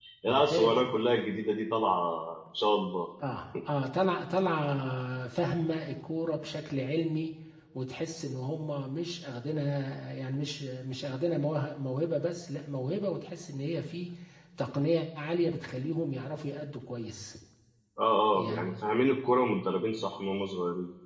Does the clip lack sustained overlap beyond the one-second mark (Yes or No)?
Yes